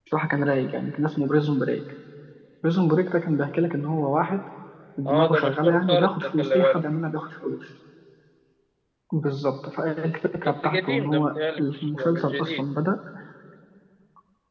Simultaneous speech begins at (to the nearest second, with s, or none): 5 s